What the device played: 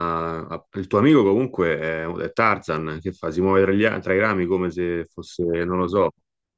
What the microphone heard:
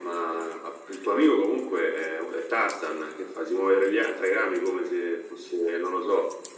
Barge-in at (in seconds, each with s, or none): none